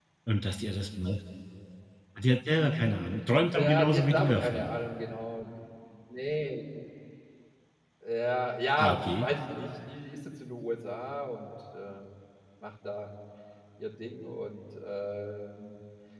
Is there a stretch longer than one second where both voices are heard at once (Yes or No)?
Yes